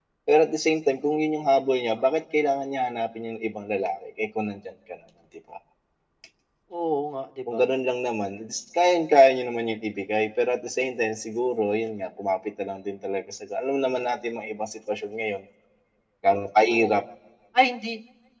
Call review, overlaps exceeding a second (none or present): none